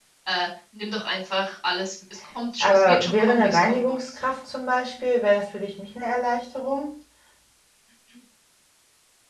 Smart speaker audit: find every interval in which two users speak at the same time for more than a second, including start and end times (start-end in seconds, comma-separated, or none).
2.6-4.2